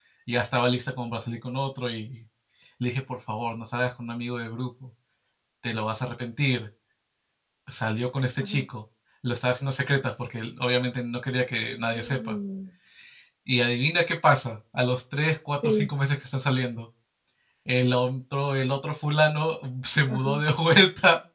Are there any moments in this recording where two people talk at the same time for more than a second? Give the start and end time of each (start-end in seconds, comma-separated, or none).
none